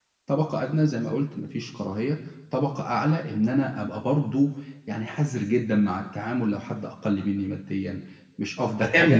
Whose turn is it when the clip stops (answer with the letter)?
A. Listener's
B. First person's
A